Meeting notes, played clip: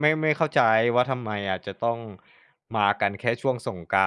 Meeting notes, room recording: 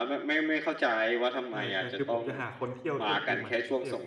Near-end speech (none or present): present